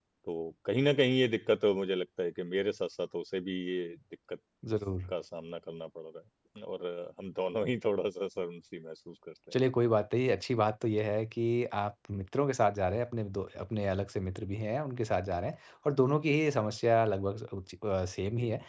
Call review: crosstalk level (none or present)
none